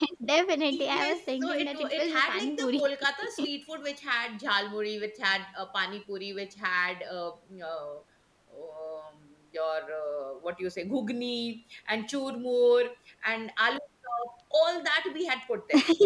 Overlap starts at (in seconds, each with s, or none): 0.7 s